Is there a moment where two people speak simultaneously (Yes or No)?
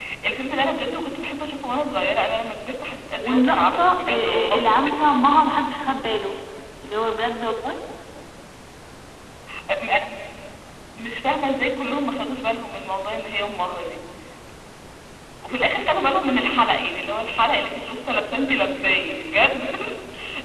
Yes